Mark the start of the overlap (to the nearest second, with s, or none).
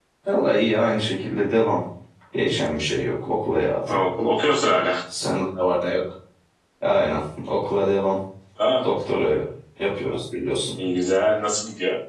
none